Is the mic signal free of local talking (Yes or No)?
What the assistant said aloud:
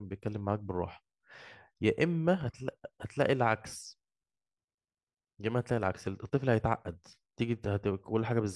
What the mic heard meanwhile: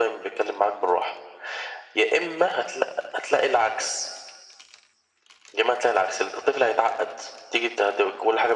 Yes